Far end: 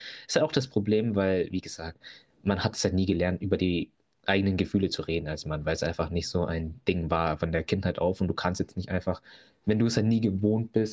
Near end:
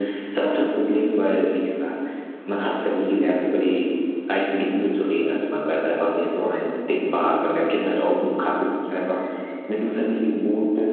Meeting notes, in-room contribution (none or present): none